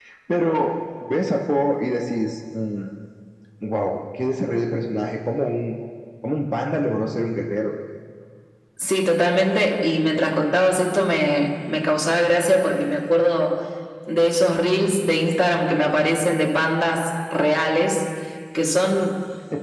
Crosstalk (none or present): none